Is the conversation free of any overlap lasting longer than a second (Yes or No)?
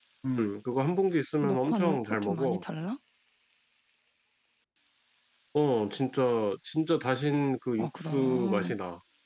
No